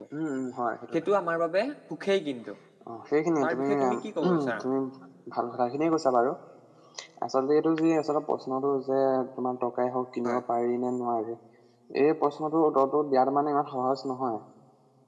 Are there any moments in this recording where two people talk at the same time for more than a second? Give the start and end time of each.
3.4-4.6

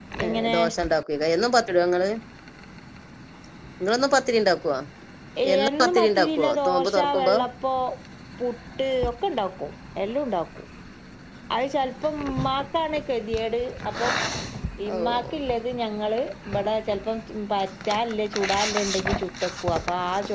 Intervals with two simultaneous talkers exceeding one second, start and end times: 5.6-7.3

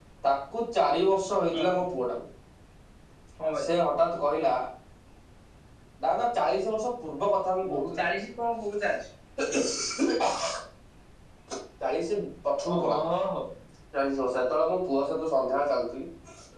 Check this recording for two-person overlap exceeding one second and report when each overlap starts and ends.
none

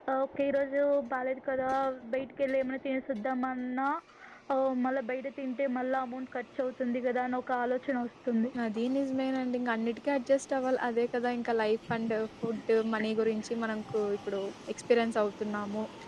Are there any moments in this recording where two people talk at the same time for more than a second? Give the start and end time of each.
none

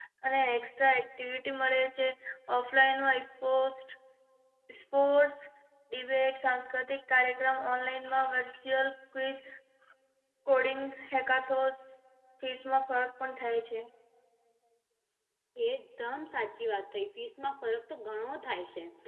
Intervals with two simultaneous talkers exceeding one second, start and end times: none

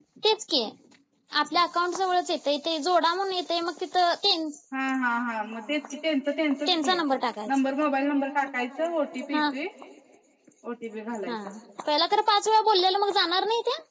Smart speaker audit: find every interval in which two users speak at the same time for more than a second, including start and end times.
none

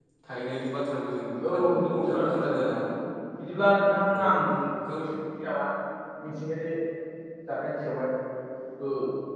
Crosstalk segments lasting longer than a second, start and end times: 1.4-2.7

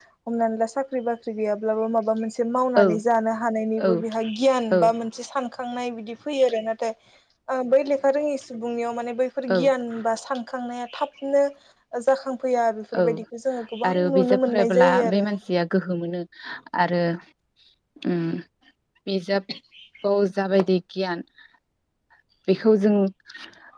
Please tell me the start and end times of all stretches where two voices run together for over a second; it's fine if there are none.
13.9-15.2

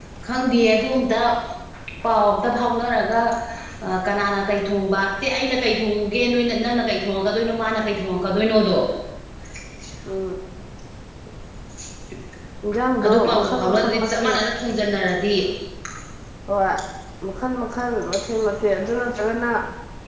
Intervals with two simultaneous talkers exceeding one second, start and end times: 13.0-14.4

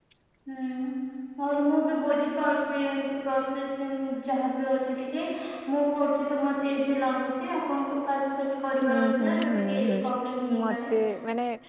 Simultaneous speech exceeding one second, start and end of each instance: 8.8-10.9

